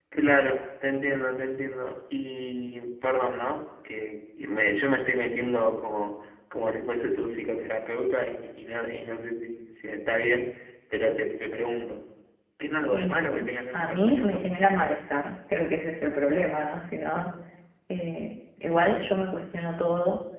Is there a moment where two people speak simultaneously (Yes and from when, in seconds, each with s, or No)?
Yes, from 12.9 s